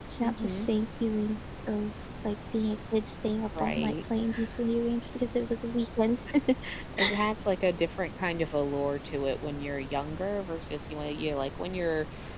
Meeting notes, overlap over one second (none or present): none